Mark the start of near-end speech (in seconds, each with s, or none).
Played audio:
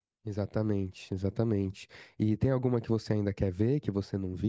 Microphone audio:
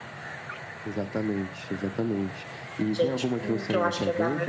2.9 s